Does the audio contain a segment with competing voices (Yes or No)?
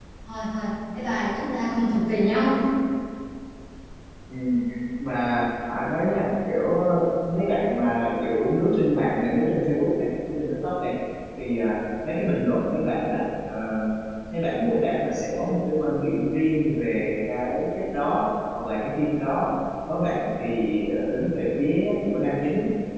No